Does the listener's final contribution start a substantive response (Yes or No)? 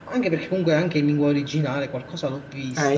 Yes